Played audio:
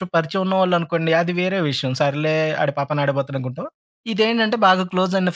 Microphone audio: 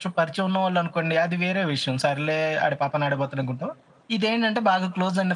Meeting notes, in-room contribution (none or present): none